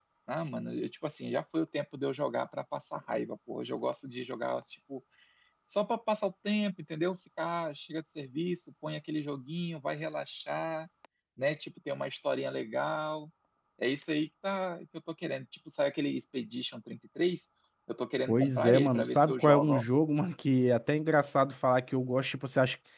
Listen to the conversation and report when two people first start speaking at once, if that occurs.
18 s

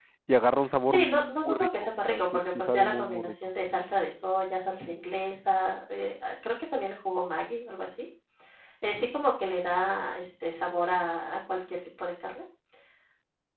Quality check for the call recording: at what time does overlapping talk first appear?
1 s

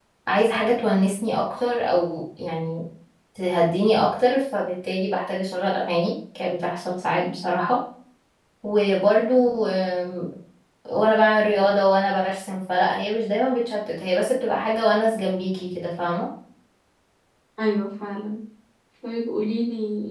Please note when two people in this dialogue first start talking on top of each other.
none

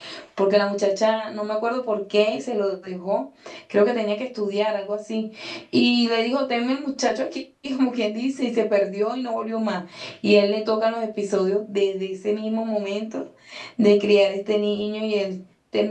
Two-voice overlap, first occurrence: none

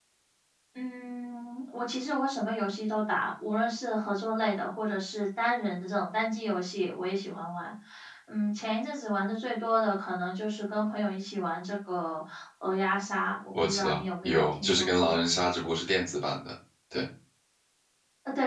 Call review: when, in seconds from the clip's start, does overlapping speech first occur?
14 s

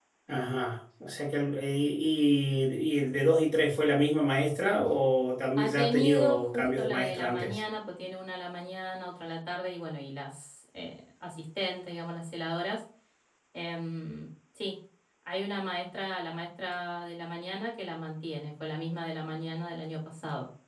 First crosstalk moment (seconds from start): 6 s

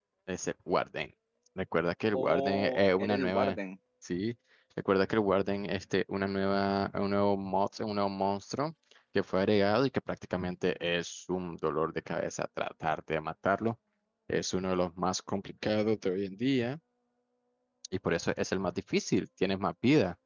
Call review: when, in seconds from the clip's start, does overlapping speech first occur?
2 s

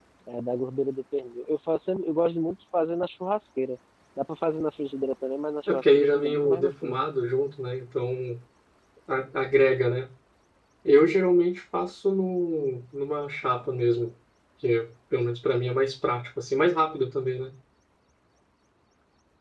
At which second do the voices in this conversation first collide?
6 s

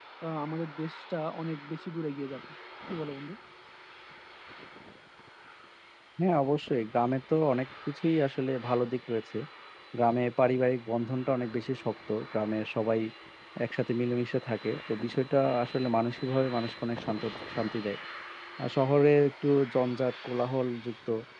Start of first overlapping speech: none

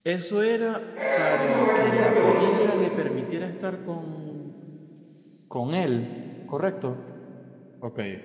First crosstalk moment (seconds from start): 1 s

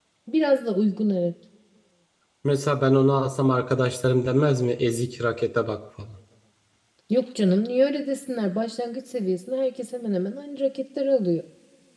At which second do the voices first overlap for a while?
none

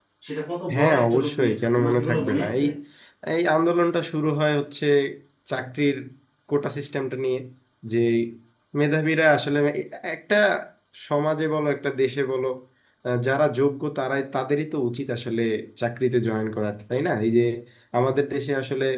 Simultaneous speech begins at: 1 s

